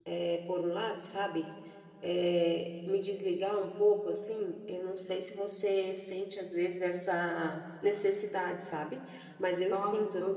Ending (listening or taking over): taking over